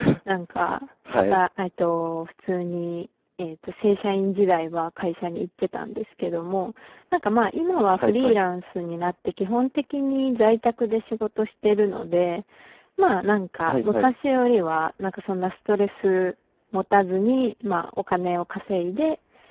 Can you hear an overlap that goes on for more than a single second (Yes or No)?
No